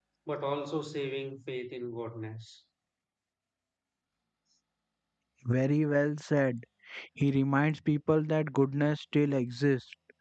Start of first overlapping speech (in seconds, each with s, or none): none